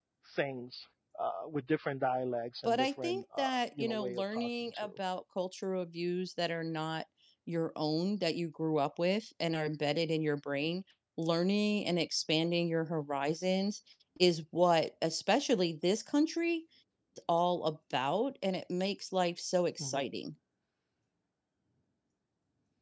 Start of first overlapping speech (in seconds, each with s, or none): 2.6 s